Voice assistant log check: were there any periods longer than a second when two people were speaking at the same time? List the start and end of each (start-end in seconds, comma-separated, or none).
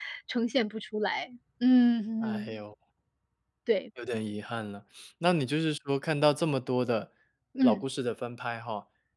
none